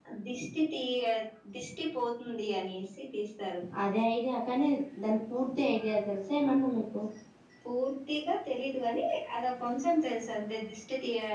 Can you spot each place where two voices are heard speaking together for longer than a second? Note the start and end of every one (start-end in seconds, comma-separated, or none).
none